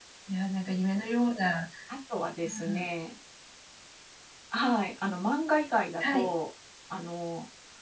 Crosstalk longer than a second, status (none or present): none